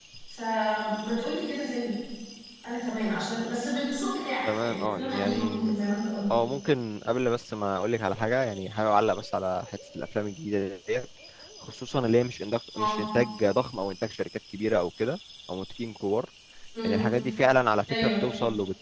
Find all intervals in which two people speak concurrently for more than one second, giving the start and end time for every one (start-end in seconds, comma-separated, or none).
4.5-5.7